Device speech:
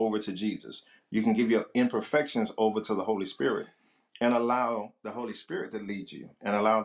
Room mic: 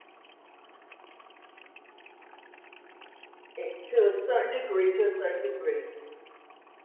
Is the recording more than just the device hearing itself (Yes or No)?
Yes